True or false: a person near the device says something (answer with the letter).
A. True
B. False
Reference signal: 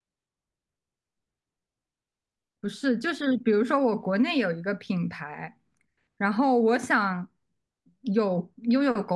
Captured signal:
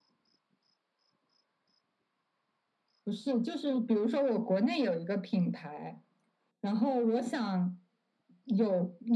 B